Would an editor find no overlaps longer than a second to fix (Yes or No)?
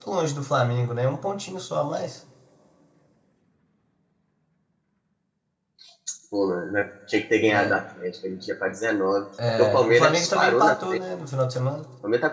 No